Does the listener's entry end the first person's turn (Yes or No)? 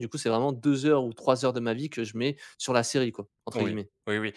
Yes